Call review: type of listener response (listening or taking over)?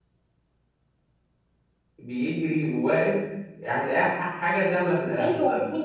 taking over